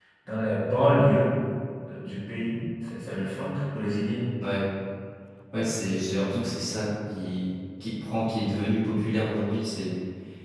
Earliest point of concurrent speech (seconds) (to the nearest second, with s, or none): none